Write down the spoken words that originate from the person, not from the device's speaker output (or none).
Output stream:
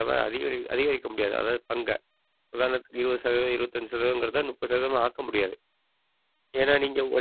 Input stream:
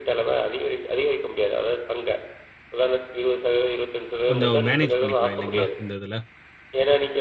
கொஞ்சம் மேனேஜ் பண்ணிக்கலாம் இல்லைங்களா? இந்த இதுல.